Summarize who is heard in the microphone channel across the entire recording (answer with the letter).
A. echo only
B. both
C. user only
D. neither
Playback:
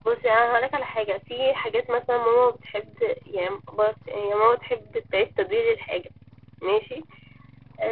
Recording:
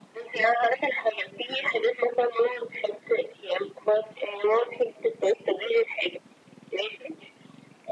A